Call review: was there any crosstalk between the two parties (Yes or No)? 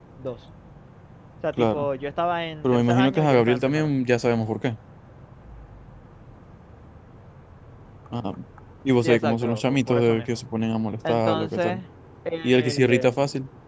Yes